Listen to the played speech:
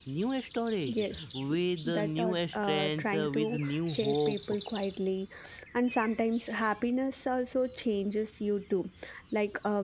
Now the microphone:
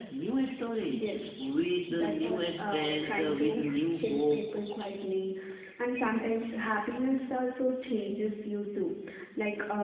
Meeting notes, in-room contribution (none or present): none